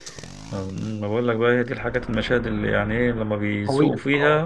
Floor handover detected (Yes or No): No